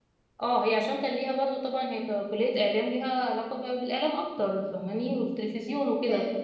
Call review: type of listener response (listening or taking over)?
listening